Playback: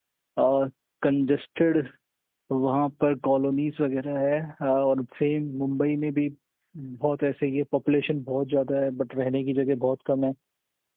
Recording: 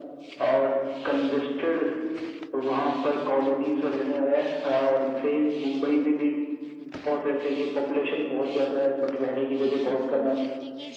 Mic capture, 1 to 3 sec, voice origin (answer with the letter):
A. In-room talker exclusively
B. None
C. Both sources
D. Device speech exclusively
D